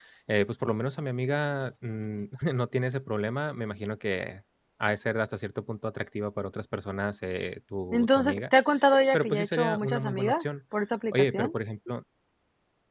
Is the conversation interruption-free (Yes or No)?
No